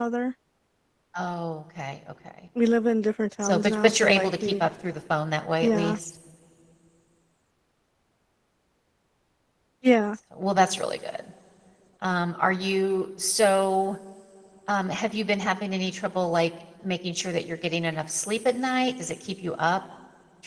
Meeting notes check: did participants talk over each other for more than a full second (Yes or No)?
Yes